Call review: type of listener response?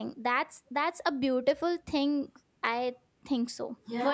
taking over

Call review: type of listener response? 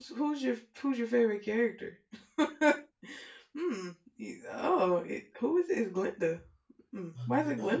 taking over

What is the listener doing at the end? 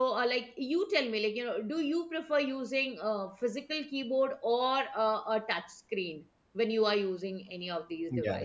taking over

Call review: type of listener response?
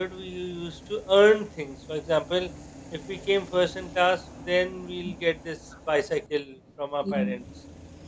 listening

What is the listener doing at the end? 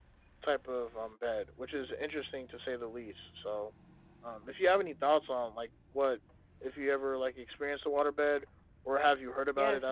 taking over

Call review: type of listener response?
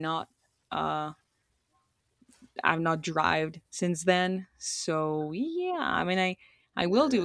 listening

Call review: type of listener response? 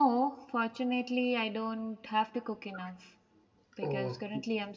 listening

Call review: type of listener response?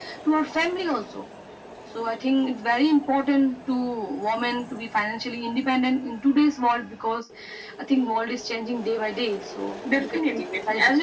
taking over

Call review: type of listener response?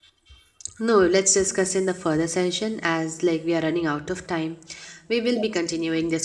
listening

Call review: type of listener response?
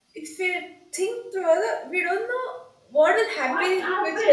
taking over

